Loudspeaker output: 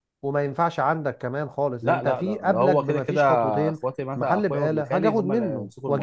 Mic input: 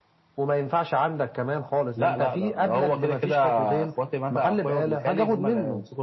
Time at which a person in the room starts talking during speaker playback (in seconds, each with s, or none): none